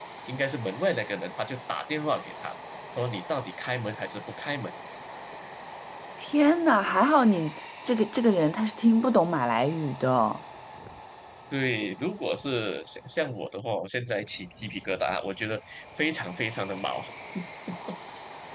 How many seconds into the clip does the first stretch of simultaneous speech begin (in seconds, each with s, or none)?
none